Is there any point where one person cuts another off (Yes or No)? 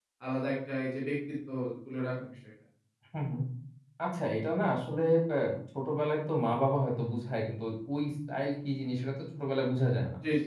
No